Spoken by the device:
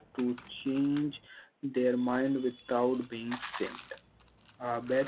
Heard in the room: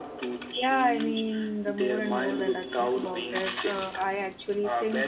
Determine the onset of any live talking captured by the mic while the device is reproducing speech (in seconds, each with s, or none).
0.6 s